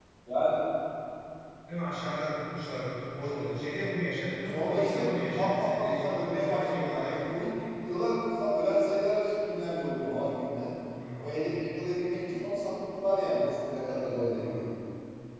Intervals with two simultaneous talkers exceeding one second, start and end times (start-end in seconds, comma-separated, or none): 4.5-7.3